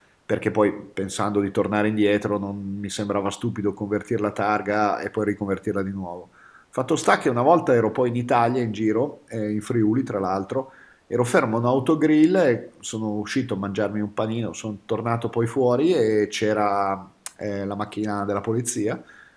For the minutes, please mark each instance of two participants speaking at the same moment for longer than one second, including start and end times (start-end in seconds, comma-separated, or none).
none